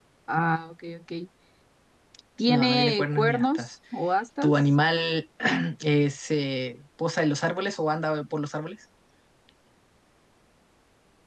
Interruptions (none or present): present